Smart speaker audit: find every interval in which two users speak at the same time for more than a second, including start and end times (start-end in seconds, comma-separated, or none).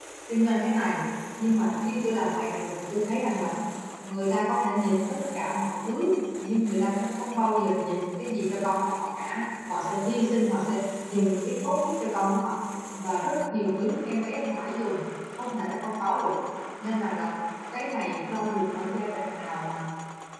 none